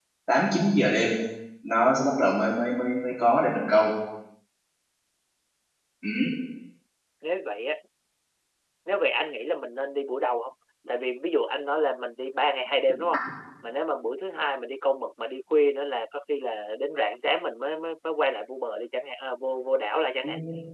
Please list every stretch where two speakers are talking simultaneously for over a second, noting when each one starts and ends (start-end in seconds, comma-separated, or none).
none